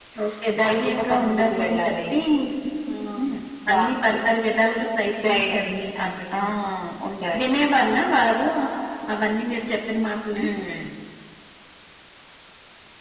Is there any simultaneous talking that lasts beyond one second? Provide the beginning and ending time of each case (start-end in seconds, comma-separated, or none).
0.6-1.9